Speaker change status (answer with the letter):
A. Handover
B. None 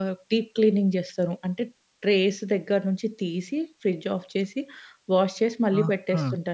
A